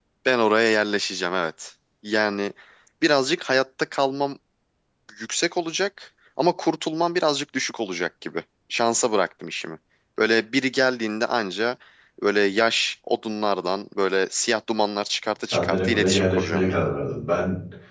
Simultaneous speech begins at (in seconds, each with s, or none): 15.4 s